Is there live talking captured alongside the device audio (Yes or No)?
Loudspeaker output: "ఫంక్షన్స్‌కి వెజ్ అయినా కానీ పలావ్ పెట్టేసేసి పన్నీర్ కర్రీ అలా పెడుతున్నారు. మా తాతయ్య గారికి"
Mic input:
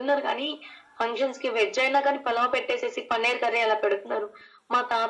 No